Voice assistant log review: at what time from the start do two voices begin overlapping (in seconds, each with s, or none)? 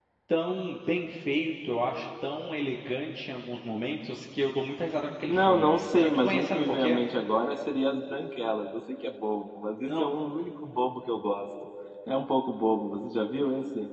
5.3 s